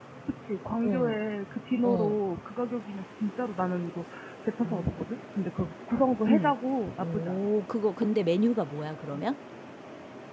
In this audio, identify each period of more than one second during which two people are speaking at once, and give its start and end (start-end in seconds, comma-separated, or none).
none